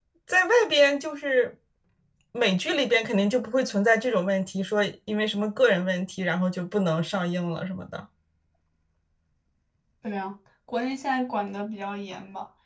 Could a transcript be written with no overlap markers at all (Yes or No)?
Yes